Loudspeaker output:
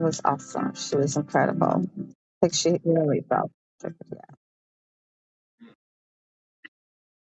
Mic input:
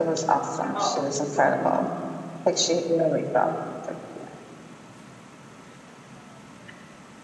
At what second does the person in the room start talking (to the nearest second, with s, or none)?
1 s